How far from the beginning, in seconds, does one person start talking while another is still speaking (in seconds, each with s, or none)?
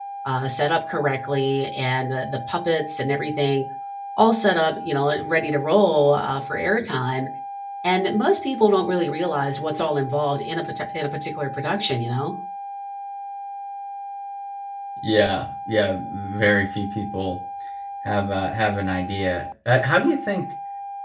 none